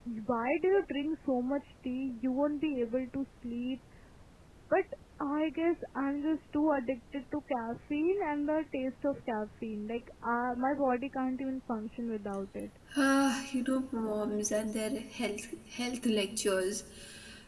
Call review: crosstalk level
none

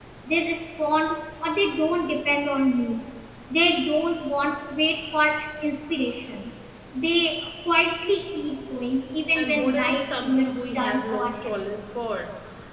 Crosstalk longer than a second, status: present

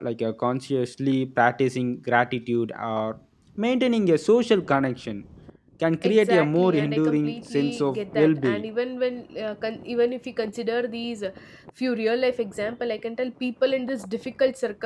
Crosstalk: present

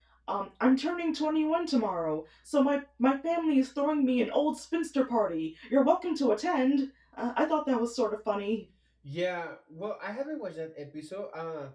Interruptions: none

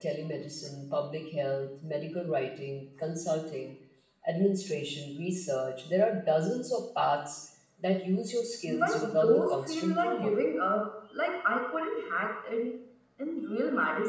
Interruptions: present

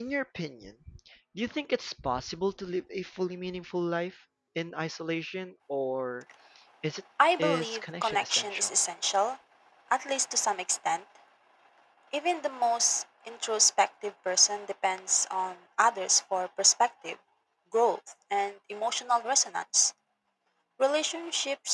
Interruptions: present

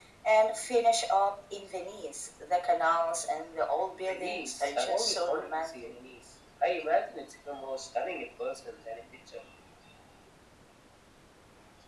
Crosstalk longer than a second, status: present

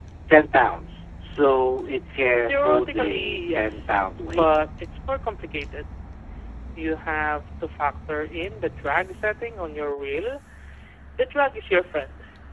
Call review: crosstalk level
present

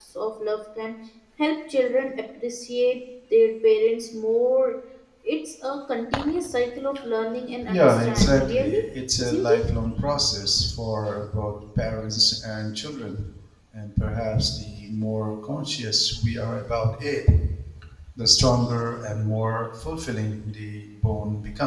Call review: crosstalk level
present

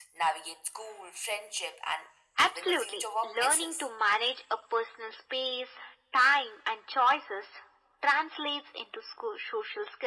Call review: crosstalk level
present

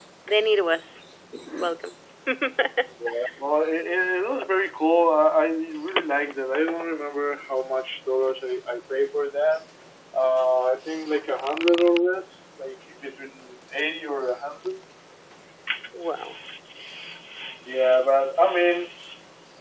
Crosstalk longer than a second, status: none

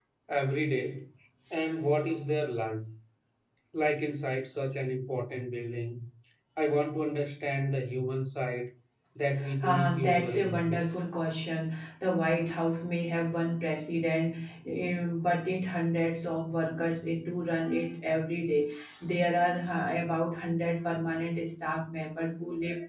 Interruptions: present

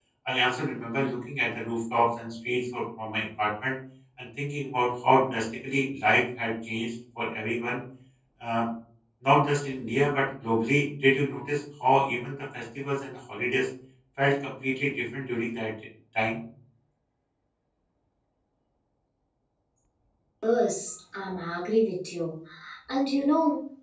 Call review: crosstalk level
none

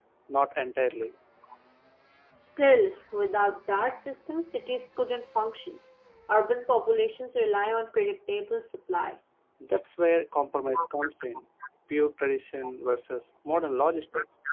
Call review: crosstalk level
none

